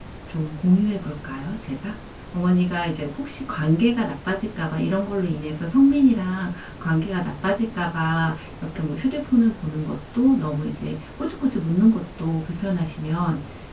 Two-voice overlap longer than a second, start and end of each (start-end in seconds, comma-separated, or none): none